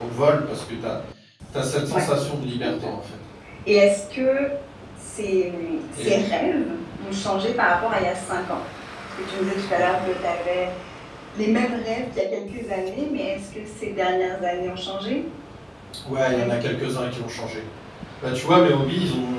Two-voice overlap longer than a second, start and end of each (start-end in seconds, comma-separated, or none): none